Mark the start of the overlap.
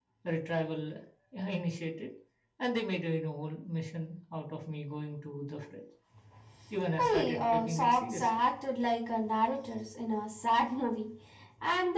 7.0 s

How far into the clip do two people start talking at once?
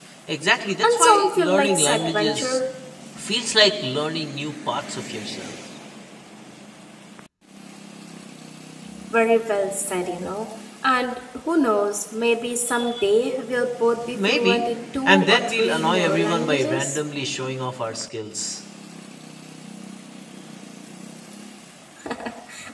0.8 s

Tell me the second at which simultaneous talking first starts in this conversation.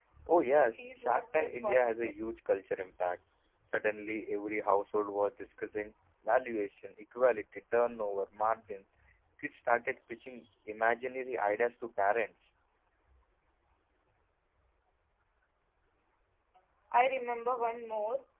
0.5 s

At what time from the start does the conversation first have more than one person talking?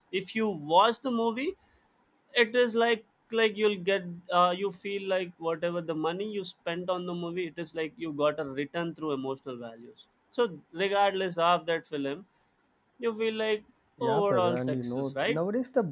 14.0 s

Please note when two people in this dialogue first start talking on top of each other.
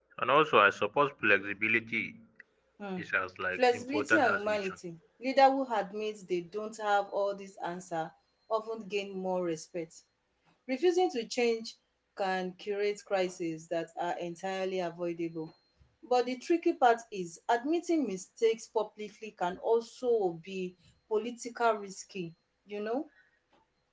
3.6 s

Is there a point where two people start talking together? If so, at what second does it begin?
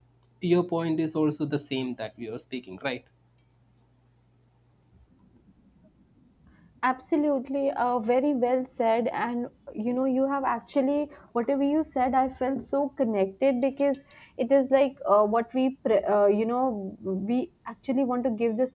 none

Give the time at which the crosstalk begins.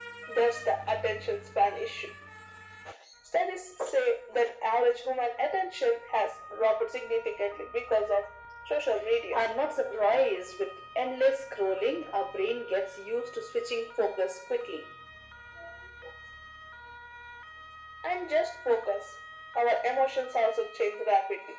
none

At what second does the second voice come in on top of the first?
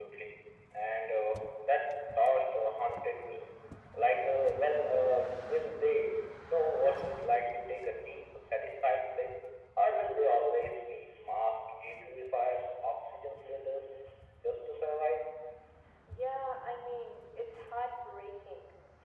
none

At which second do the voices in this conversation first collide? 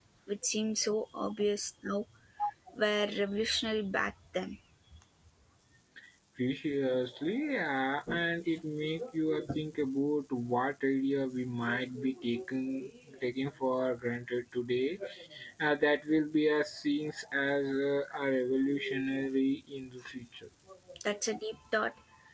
none

